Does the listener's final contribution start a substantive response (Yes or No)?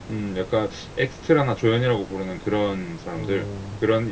Yes